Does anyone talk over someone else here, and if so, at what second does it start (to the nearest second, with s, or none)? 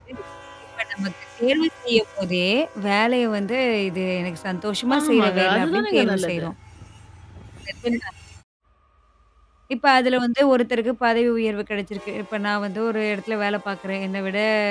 5 s